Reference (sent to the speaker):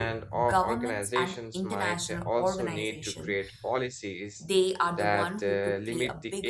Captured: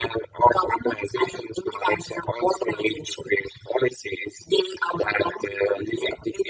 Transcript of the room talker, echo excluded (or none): none